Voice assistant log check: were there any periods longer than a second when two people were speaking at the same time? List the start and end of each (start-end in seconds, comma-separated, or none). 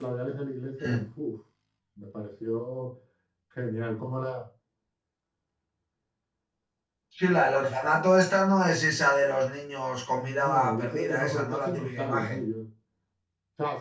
10.2-12.4